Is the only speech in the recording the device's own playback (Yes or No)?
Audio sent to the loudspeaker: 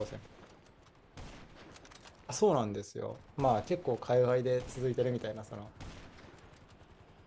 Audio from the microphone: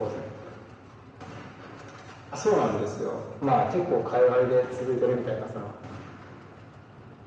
Yes